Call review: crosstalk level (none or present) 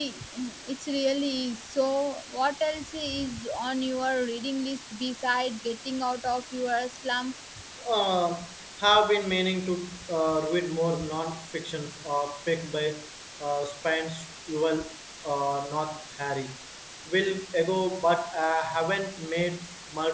none